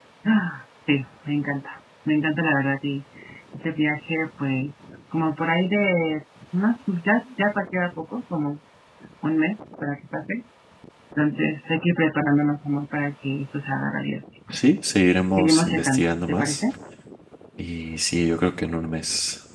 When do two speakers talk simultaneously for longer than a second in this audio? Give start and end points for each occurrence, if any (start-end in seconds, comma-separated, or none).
15.4-16.6